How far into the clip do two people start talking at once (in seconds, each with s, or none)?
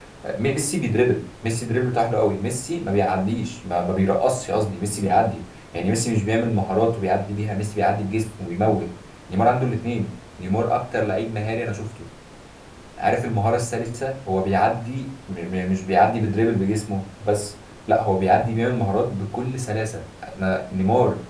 none